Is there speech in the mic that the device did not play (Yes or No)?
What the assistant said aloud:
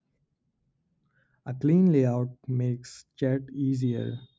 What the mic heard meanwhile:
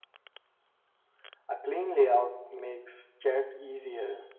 No